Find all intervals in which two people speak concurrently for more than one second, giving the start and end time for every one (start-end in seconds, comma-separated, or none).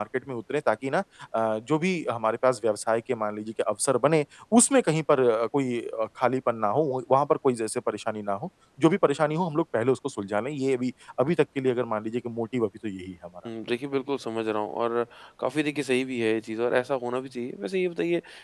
none